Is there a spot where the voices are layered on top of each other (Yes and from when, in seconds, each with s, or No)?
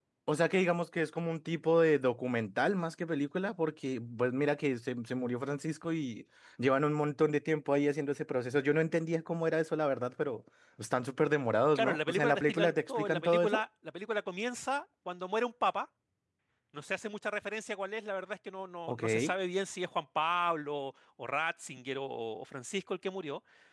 Yes, from 11.8 s